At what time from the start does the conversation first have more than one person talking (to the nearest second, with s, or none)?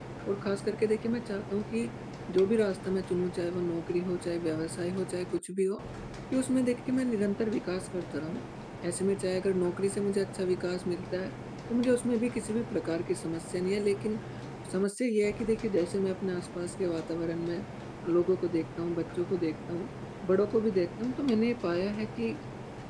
none